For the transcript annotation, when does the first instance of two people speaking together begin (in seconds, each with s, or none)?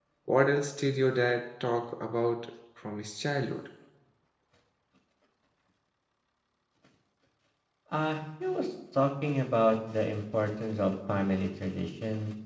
none